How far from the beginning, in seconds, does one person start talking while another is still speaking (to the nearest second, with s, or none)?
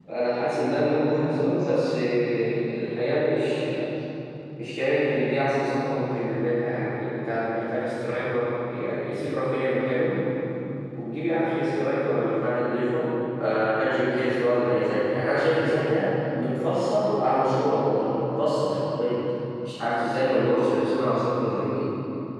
1 s